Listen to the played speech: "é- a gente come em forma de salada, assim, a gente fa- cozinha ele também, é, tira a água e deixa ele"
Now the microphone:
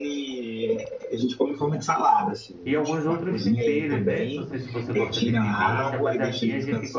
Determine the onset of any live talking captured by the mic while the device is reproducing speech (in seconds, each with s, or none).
2.6 s